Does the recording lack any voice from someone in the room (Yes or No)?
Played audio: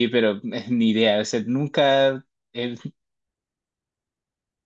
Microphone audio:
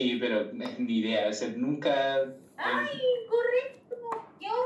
No